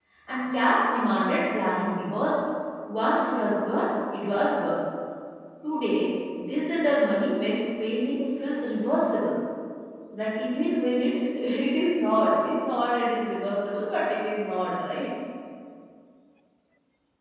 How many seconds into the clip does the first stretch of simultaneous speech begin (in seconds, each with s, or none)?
none